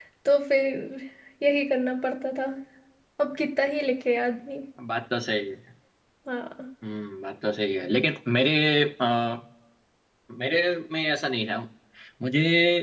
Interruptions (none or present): none